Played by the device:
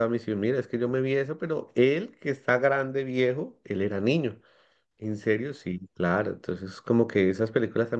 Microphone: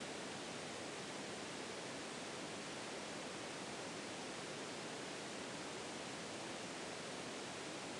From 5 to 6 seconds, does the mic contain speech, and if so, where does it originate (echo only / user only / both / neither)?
neither